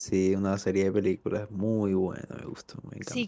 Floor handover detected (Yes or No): Yes